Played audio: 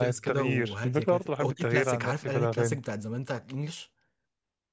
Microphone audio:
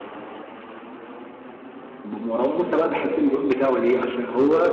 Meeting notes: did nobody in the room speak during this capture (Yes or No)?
No